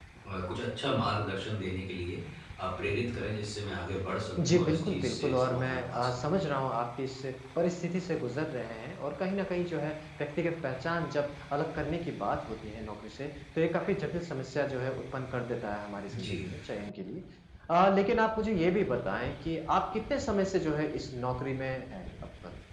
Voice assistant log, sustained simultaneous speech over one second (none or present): present